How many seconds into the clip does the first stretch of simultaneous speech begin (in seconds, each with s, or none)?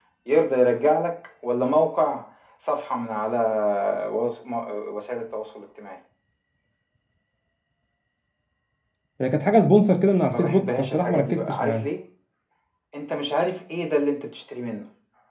10.3 s